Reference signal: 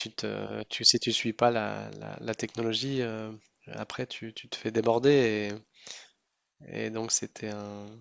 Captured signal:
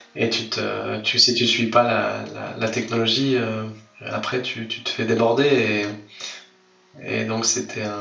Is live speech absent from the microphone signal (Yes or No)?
Yes